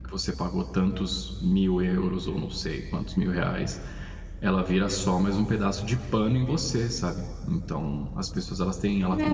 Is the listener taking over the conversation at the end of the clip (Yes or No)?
Yes